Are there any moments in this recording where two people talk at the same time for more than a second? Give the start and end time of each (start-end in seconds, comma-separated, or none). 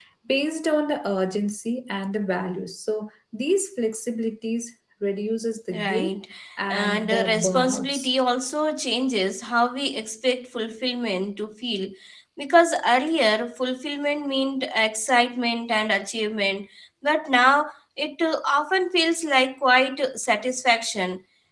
6.7-8.1